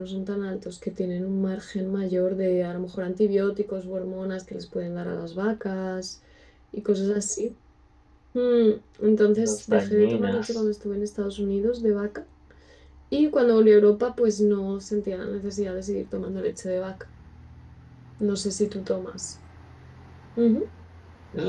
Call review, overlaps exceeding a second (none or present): present